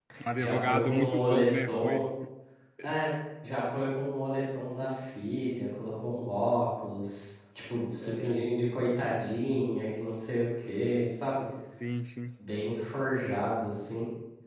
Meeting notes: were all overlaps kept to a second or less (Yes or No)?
No